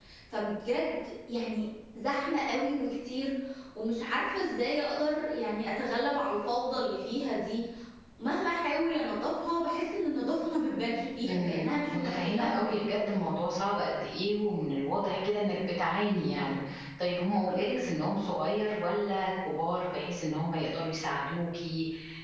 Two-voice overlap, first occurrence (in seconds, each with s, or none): 11.2 s